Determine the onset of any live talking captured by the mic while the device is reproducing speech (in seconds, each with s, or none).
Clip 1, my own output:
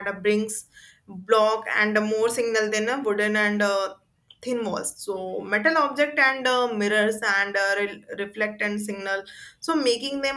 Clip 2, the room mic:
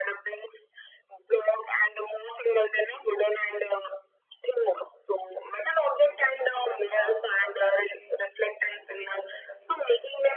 6.0 s